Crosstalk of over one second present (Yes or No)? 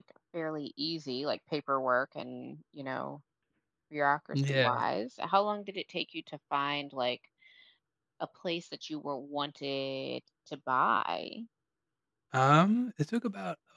No